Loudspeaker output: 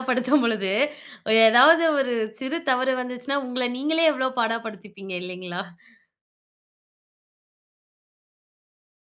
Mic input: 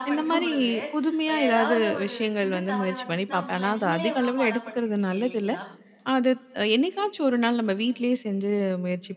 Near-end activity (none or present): present